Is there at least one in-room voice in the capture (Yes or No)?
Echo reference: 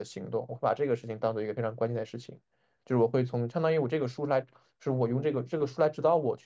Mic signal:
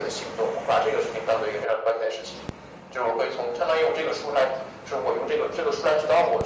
No